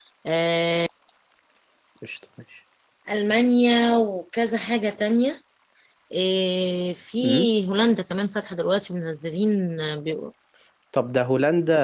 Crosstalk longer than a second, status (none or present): none